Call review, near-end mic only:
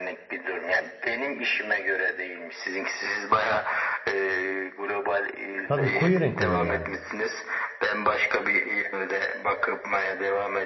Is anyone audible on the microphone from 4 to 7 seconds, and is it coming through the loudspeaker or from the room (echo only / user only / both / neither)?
both